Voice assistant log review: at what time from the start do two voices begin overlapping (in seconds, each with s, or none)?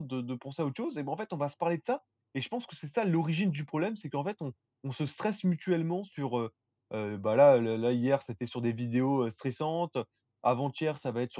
none